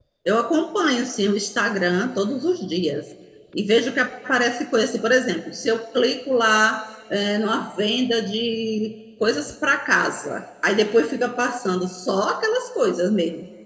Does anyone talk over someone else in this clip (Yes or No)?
No